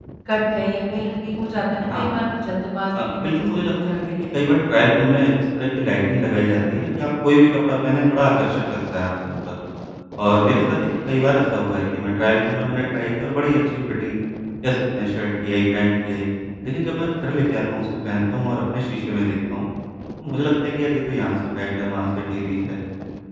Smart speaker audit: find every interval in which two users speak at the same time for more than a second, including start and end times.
2.9-4.4

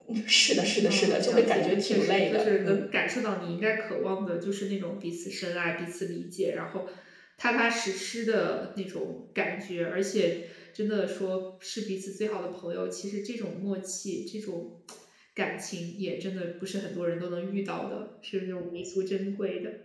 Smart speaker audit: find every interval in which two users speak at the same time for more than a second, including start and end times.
0.9-2.8

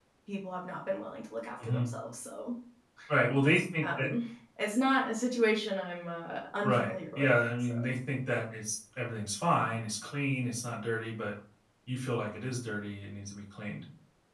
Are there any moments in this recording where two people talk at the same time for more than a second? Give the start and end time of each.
6.6-8.0

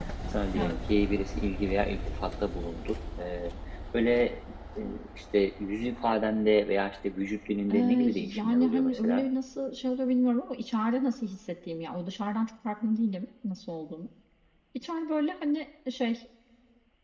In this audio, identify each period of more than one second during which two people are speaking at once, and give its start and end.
7.7-9.2

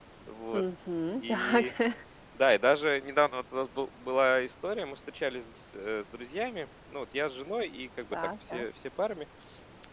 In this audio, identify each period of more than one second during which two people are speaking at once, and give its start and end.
none

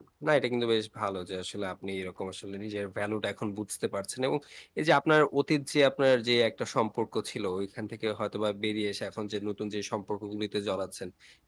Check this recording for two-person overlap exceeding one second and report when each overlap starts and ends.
none

